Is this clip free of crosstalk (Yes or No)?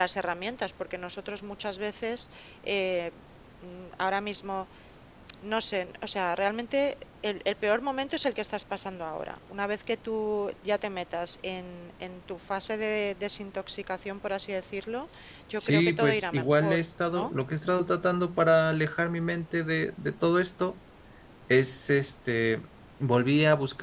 No